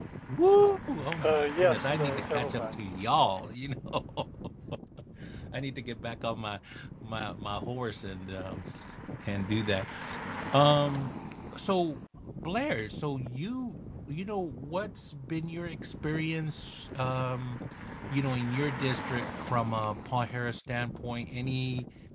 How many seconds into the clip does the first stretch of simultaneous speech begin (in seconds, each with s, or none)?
1.2 s